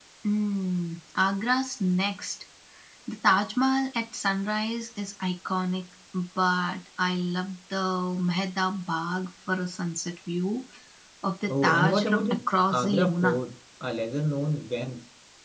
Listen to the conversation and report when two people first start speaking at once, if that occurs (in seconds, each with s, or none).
11.5 s